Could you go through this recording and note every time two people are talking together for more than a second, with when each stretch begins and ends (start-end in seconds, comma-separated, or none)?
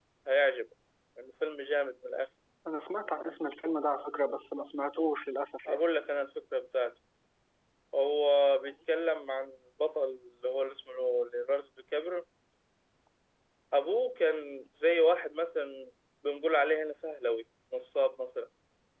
none